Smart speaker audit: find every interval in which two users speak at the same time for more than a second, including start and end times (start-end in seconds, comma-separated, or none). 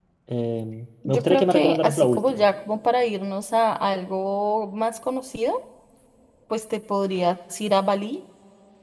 1.1-2.4